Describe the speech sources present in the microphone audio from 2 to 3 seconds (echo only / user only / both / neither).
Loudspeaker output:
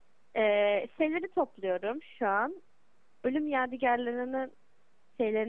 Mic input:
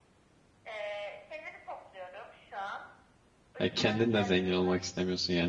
echo only